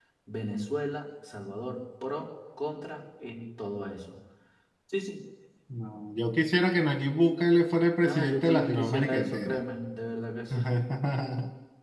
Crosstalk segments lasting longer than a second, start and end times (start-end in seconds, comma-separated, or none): 8.0-9.6